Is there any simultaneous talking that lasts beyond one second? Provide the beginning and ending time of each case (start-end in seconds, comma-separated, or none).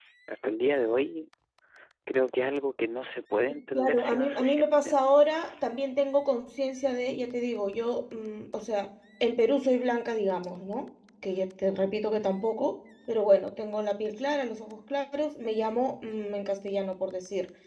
3.7-5.0